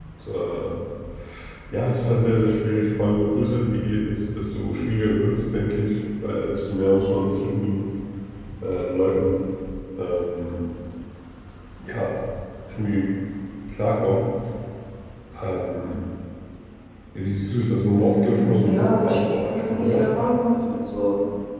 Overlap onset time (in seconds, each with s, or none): 18.0 s